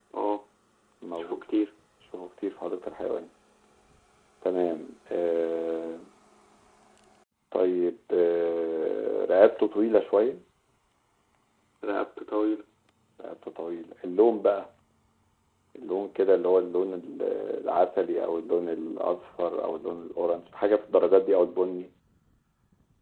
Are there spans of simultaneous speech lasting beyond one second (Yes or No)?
No